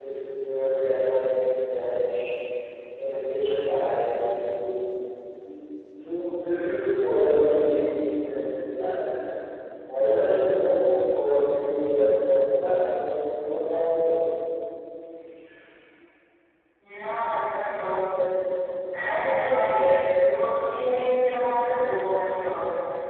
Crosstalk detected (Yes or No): No